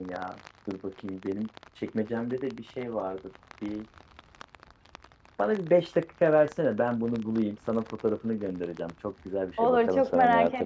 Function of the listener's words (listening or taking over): taking over